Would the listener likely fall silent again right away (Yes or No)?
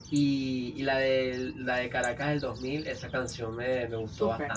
No